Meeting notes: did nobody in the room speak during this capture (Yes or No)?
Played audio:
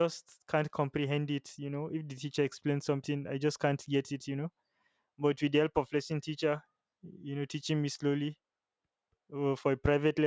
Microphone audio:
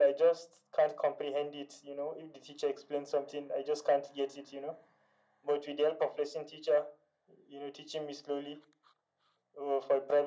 Yes